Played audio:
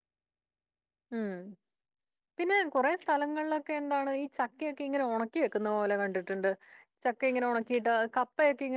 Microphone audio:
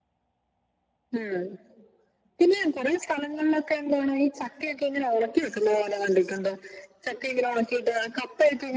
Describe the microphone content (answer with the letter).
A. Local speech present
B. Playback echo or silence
B